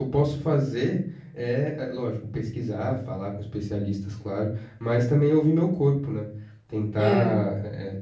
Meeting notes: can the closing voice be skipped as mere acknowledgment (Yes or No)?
Yes